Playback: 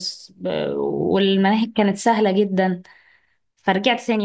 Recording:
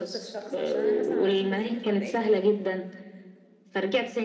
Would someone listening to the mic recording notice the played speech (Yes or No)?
Yes